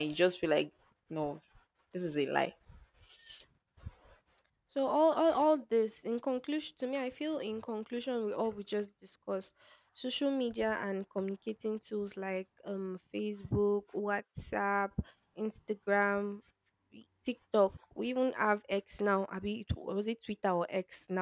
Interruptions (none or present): none